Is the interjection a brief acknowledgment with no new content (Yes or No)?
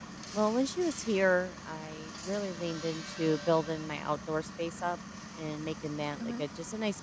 Yes